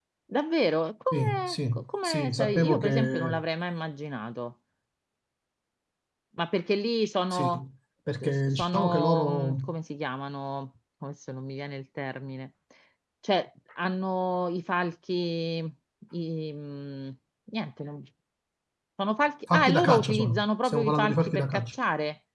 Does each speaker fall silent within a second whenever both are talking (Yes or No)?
No